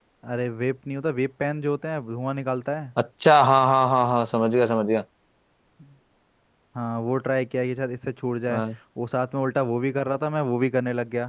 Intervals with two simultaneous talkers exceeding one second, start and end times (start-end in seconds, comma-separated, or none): none